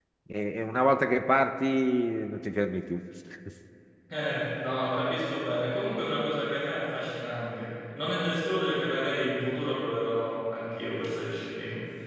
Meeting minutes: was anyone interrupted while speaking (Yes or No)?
No